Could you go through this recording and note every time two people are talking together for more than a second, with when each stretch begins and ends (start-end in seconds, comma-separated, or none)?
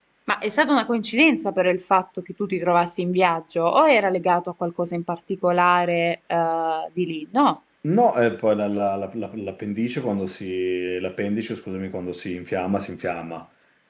none